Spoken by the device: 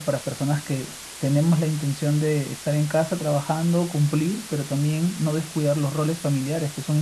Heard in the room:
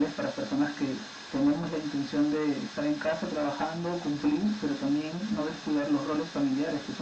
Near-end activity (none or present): none